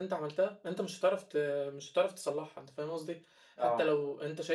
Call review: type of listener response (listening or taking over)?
listening